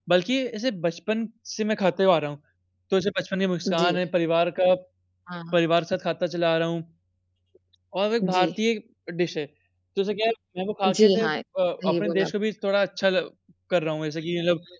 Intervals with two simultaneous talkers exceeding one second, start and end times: none

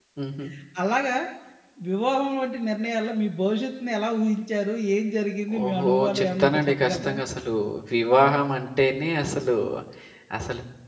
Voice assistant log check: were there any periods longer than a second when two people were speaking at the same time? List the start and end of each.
5.6-7.2

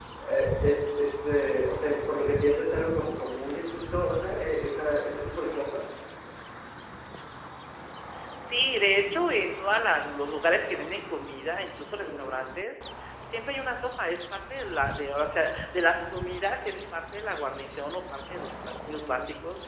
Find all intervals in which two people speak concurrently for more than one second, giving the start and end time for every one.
none

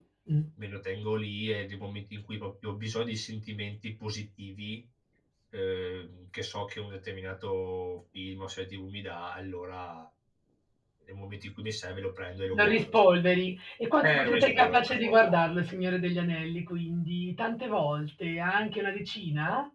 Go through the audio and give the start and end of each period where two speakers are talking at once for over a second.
14.0-15.3

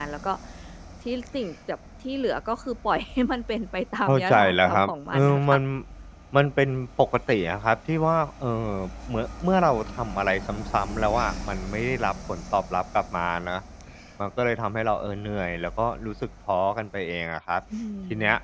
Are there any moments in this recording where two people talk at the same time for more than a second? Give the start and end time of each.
4.1-5.6

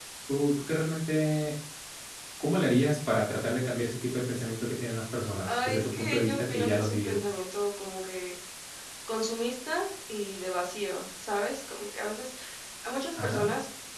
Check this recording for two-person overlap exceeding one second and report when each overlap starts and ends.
5.5-7.2

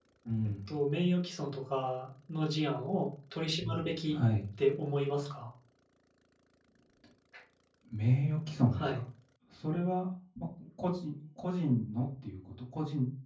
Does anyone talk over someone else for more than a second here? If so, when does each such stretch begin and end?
none

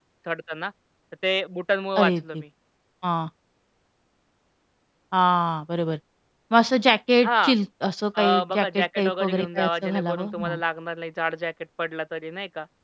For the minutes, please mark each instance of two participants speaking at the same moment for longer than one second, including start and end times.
8.2-10.6

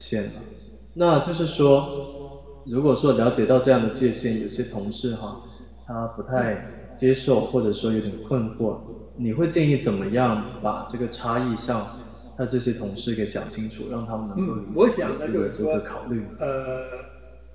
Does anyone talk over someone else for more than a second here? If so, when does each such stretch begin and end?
14.4-15.8

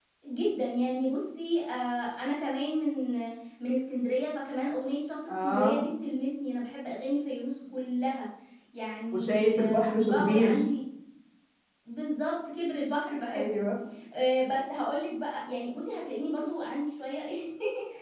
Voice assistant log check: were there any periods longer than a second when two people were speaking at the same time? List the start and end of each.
9.1-10.6

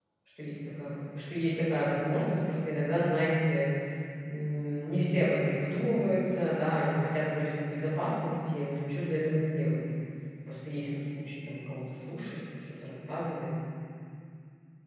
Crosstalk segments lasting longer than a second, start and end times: none

